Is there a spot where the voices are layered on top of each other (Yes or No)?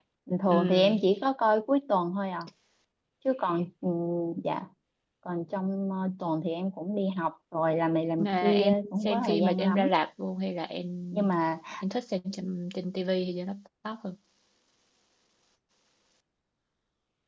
Yes